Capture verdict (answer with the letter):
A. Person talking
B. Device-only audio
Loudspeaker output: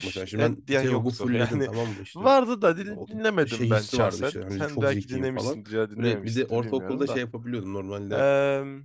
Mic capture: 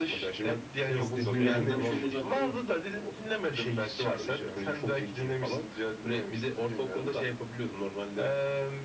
A